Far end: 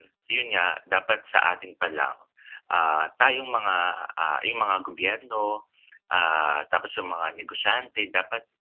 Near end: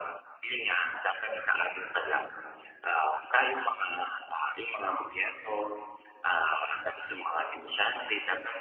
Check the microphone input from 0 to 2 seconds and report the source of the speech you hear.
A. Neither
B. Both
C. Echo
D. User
C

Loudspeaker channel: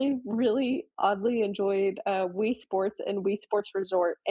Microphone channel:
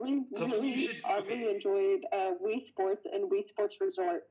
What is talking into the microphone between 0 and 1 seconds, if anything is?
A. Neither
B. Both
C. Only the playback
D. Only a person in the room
B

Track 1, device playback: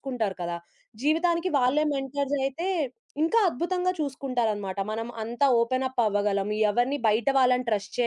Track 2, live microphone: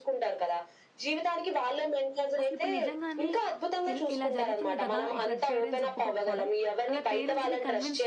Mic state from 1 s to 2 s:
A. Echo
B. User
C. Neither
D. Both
A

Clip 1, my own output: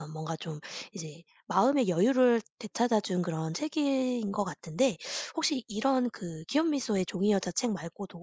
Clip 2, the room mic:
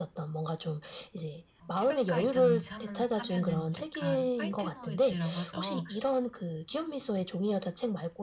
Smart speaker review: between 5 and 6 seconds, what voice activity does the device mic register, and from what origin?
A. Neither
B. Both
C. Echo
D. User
B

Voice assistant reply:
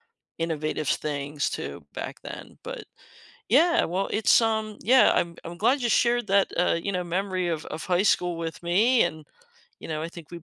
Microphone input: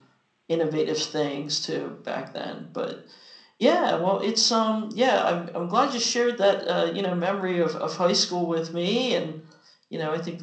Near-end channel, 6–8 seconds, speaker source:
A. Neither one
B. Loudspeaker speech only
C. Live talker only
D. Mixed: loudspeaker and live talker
B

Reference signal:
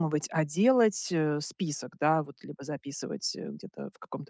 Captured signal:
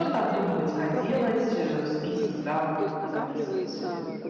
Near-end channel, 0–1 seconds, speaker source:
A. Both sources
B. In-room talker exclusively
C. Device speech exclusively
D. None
A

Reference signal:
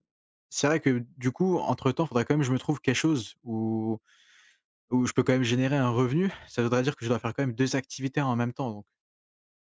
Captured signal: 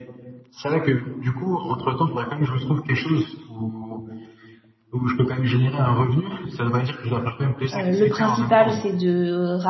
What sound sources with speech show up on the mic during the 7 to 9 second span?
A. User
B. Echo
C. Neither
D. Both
D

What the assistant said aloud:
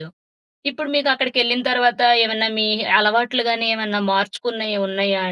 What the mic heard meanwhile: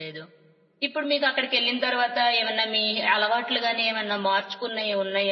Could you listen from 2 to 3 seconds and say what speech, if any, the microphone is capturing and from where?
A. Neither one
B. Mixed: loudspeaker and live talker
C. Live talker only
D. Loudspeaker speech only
D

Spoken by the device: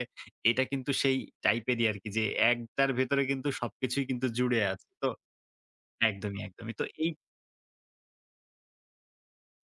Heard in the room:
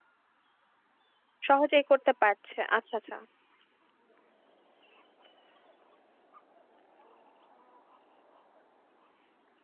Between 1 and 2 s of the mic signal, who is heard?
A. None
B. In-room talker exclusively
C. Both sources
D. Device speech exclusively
B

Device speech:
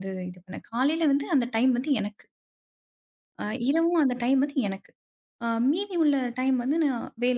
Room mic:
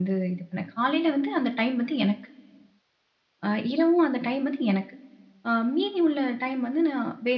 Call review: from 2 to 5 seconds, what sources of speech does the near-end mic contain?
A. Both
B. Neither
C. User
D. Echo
D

